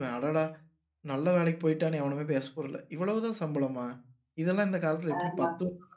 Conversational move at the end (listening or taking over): listening